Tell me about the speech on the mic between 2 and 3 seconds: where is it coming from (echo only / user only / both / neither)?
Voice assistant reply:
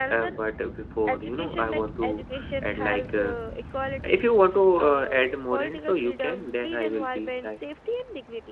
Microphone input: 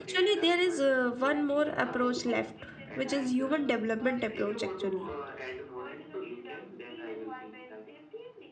both